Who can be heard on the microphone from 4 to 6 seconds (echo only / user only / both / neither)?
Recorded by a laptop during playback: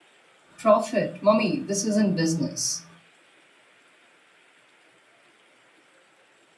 neither